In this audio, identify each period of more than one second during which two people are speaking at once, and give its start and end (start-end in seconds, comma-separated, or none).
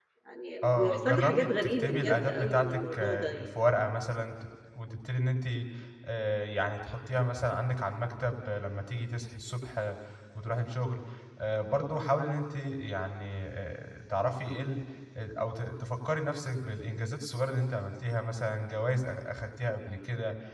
0.6-3.5